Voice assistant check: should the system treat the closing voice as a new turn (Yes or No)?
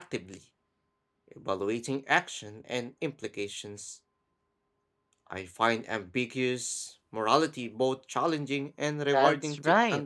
Yes